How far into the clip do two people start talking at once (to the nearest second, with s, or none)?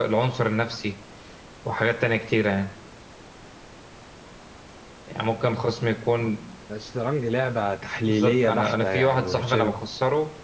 8 s